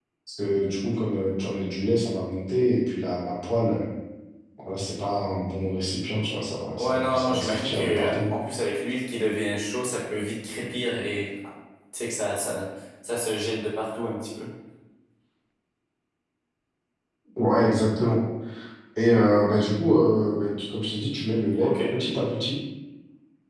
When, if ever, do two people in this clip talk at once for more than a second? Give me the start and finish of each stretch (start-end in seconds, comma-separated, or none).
6.8-8.3